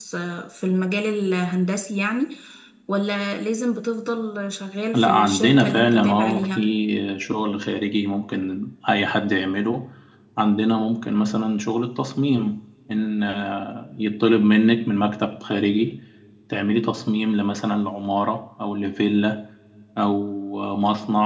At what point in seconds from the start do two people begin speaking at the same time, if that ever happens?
5 s

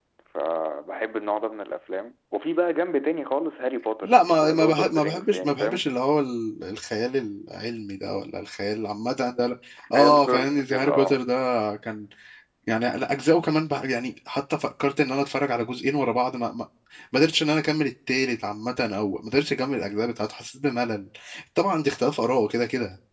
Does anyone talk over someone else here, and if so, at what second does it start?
4 s

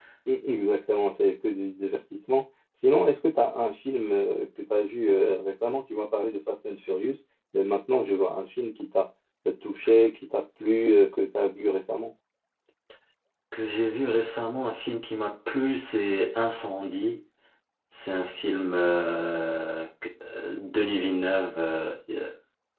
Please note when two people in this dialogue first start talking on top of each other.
none

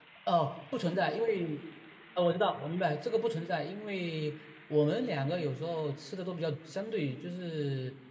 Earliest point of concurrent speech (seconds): none

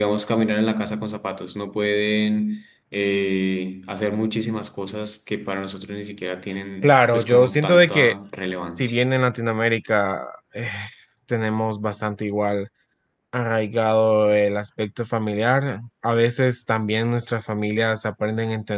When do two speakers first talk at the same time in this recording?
7 s

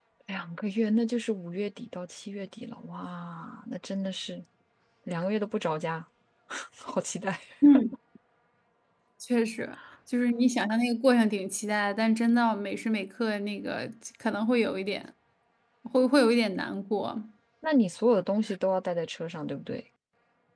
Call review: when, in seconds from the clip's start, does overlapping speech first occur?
none

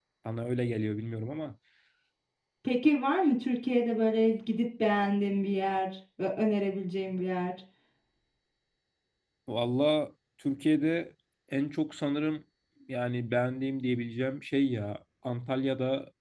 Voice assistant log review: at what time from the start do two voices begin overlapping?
none

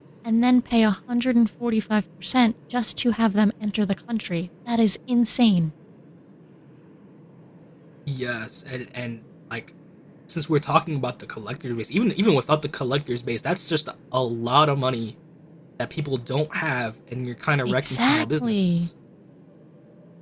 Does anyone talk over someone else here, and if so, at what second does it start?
18 s

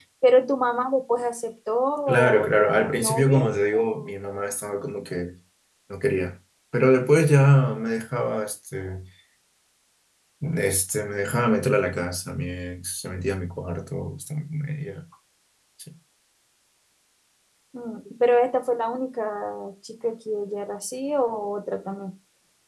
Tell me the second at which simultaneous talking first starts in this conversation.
2 s

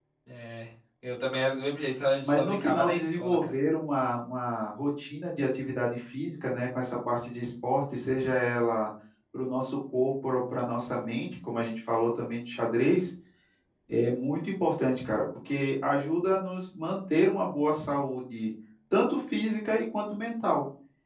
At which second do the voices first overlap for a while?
2 s

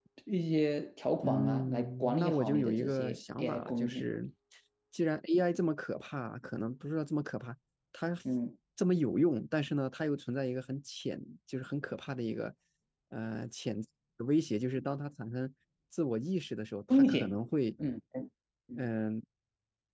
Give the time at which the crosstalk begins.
1 s

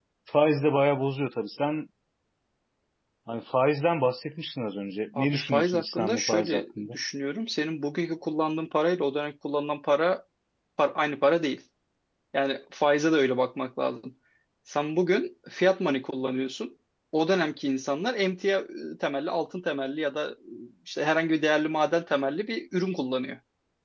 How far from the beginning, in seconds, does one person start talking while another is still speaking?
5 s

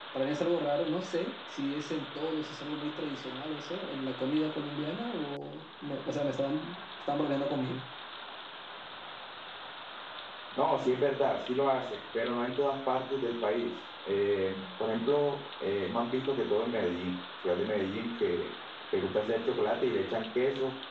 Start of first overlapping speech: none

